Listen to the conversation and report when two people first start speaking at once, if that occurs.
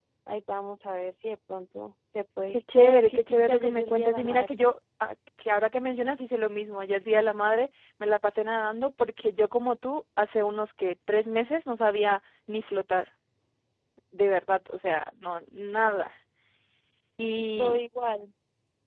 3 s

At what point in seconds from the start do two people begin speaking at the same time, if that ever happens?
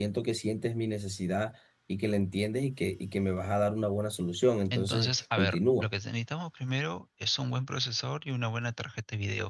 5 s

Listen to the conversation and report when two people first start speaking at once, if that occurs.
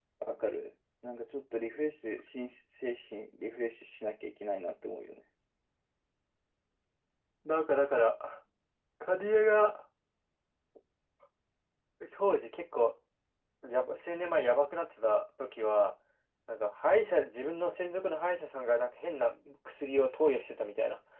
none

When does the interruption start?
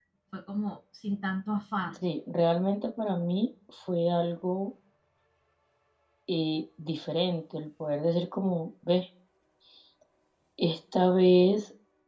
none

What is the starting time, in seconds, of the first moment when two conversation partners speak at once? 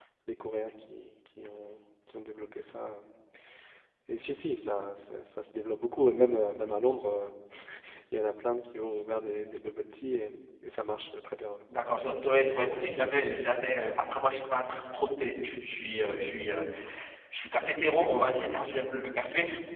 none

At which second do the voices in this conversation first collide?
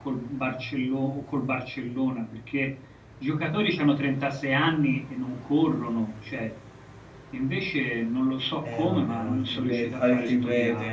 9 s

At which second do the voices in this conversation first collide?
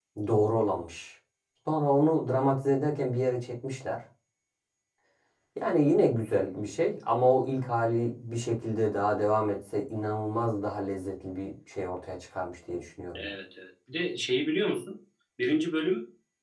none

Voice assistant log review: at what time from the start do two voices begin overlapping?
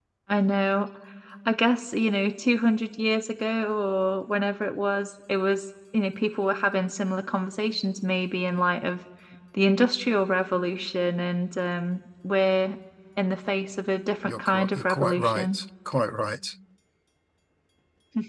14 s

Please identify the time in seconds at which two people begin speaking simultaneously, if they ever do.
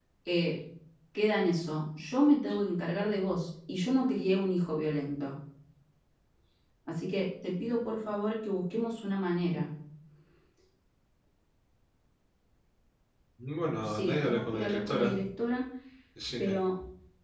14 s

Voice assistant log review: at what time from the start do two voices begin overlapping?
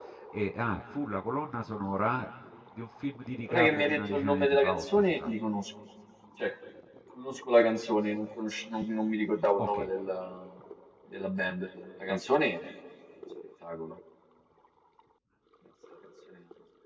3 s

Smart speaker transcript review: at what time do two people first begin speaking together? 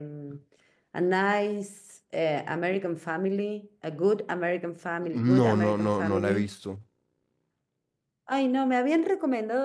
5 s

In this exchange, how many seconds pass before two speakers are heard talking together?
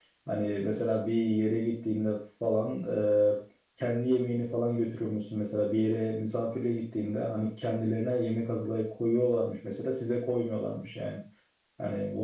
none

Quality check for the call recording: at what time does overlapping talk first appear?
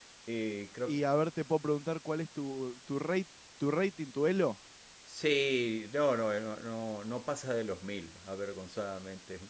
none

